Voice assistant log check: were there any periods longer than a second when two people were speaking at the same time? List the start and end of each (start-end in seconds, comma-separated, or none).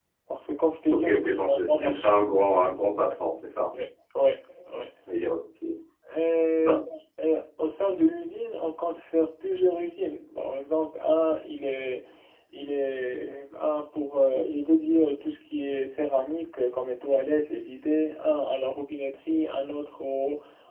0.9-2.1